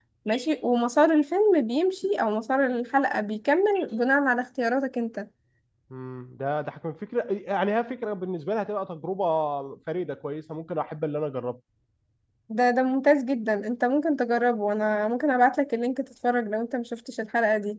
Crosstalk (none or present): none